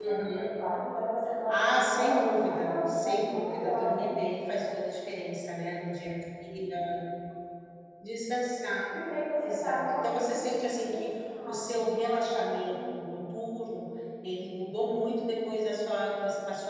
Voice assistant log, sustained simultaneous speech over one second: present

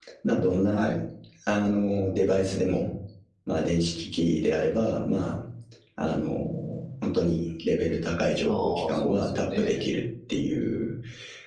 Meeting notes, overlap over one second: present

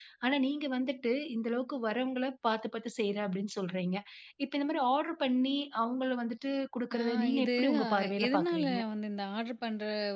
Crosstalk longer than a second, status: present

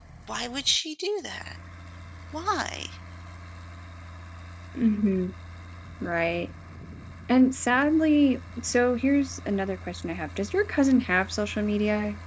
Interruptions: none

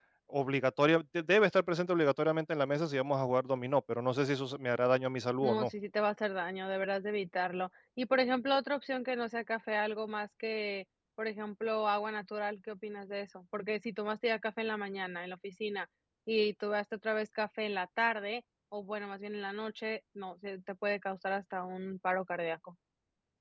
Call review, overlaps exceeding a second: none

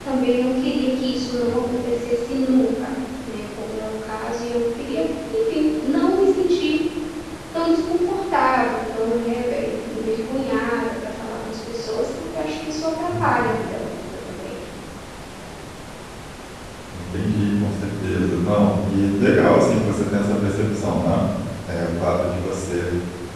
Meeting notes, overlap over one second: none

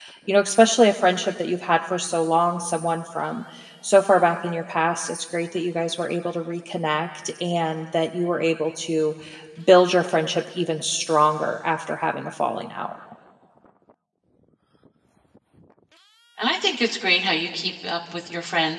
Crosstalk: none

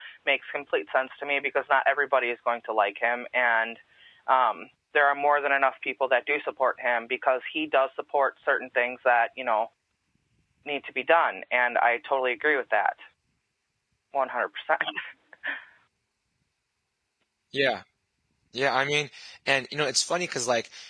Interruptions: none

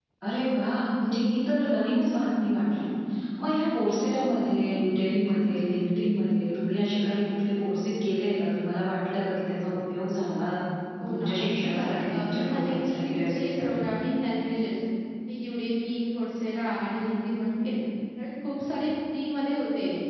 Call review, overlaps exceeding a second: present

